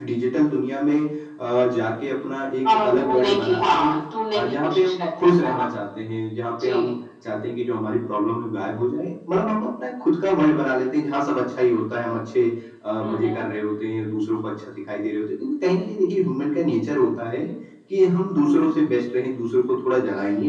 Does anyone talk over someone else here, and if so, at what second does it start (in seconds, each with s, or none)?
2.7 s